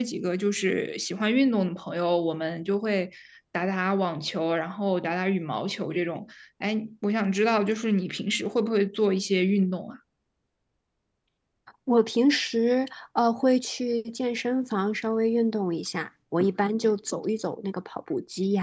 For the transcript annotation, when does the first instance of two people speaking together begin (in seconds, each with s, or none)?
none